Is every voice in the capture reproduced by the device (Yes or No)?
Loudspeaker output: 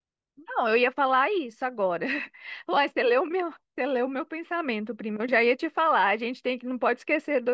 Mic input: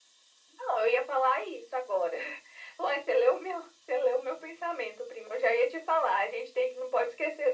Yes